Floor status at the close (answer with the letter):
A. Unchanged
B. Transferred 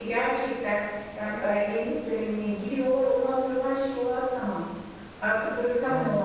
A